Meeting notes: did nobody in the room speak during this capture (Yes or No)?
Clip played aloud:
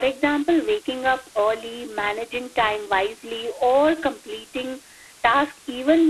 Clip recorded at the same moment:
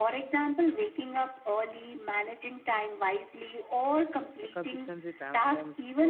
No